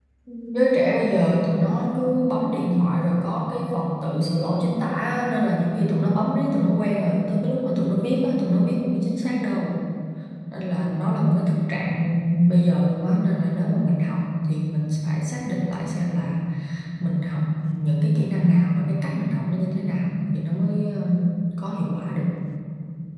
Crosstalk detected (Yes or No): No